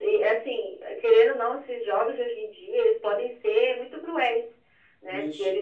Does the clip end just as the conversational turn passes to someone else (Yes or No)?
No